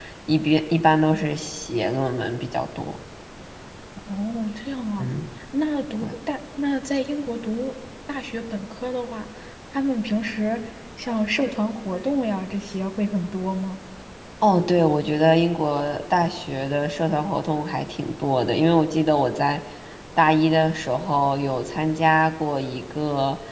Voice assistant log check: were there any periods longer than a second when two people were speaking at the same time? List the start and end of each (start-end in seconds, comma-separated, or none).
none